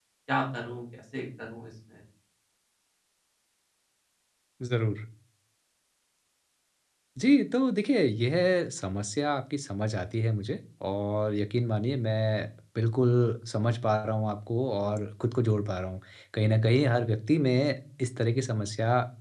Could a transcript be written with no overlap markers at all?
Yes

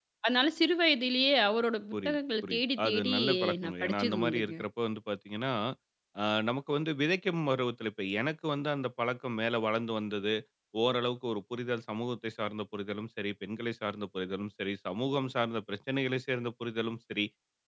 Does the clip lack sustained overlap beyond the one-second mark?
No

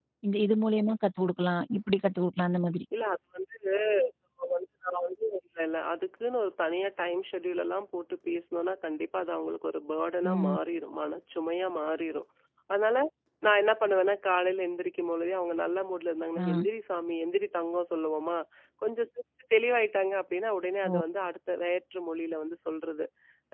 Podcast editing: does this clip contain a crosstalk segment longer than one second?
No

